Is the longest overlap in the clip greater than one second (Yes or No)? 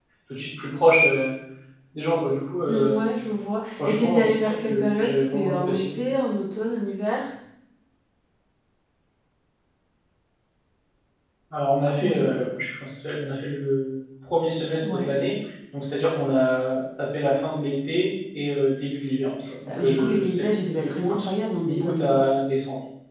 Yes